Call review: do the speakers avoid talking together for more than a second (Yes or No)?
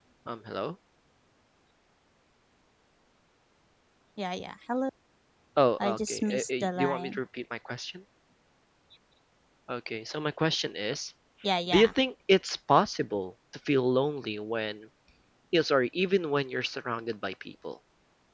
No